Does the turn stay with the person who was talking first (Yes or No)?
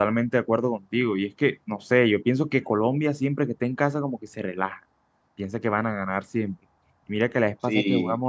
Yes